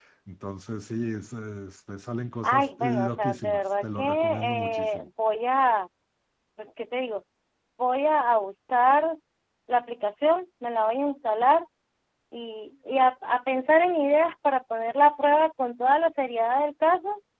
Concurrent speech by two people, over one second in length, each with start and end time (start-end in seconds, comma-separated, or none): 2.4-5.1